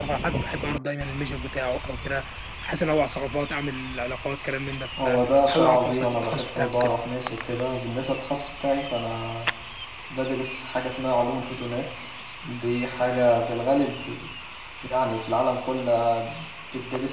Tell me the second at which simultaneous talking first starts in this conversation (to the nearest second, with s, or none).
5 s